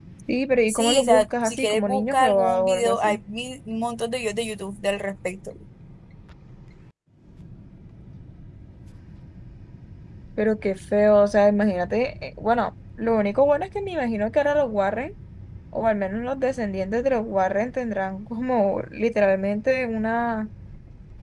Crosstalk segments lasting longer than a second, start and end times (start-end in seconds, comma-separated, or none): 0.7-3.2